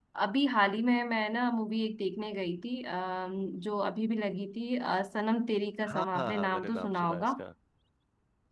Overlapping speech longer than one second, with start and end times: 5.9-7.3

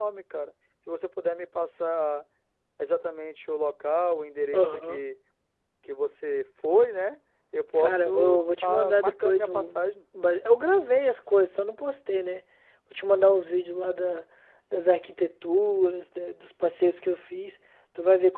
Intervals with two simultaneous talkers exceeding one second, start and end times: 7.8-9.8

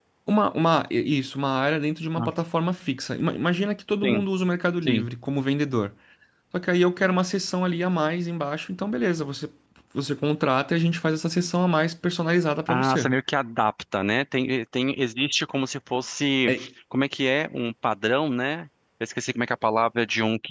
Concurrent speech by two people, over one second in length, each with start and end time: none

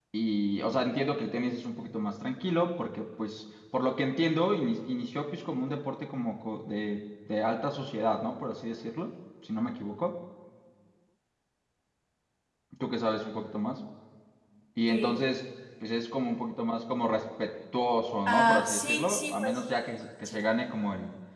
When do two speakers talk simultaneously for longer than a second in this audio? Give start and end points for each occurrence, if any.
18.3-19.6

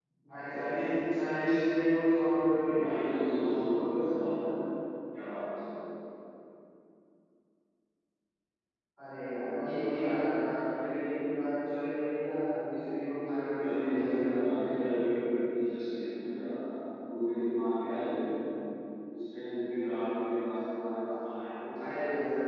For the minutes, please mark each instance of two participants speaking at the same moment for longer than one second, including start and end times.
2.8-4.5, 13.6-15.0

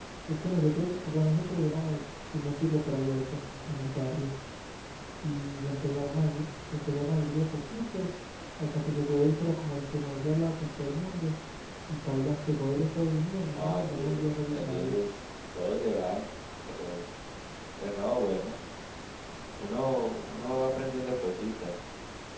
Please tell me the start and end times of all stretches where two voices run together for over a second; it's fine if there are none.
13.6-14.9

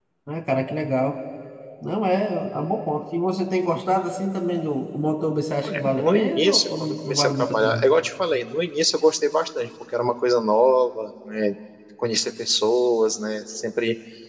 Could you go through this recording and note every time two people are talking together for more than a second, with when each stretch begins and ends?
5.6-7.9

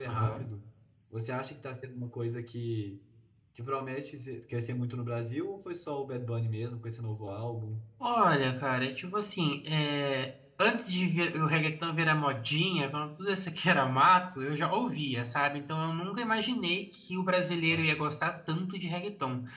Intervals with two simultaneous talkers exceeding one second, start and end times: none

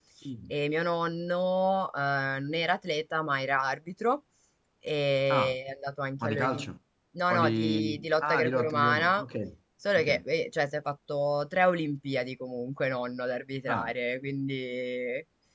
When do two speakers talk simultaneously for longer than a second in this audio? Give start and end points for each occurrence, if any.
7.3-9.2

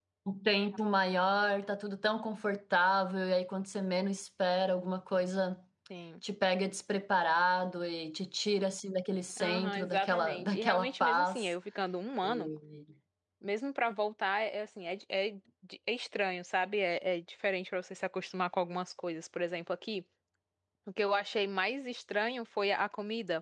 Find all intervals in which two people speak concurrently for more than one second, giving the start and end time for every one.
9.4-11.5

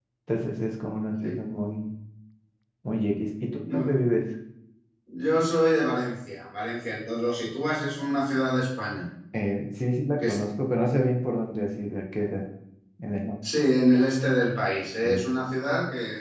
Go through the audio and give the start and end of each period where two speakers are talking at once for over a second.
none

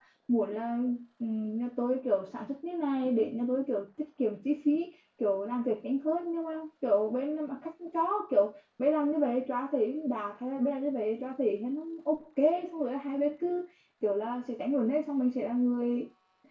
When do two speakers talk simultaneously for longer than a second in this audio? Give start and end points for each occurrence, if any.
none

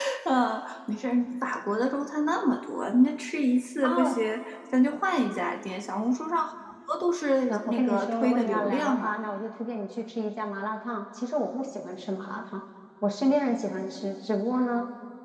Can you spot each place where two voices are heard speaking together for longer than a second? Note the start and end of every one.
7.5-9.1

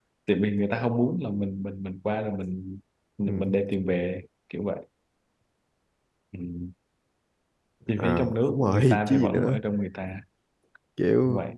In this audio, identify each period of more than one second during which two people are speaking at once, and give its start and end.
8.0-9.6

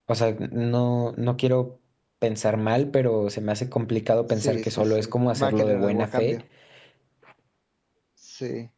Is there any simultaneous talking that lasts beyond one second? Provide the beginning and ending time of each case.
4.4-6.4

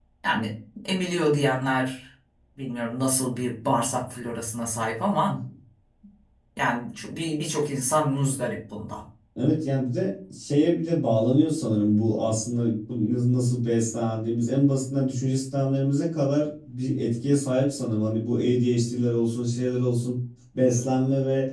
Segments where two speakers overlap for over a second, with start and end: none

